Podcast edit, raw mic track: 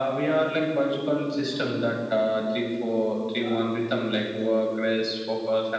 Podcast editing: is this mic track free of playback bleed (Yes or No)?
No